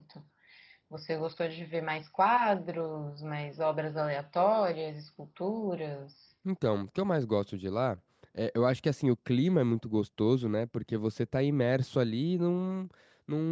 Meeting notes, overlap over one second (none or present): none